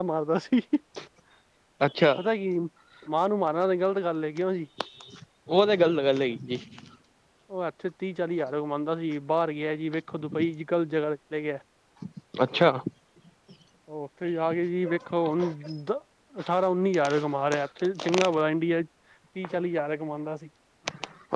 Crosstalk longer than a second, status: none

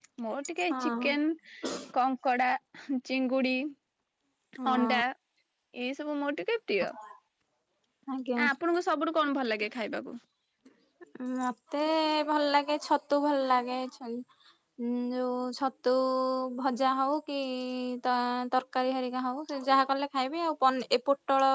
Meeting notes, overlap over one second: none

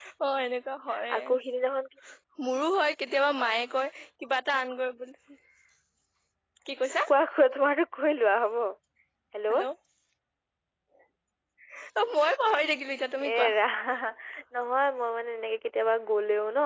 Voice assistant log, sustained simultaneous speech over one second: none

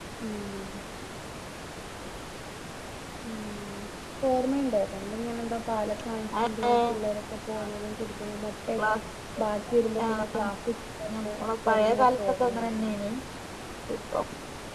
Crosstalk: present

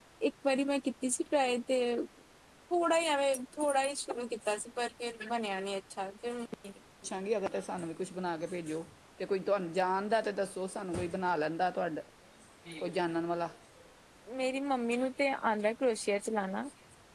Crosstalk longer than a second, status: none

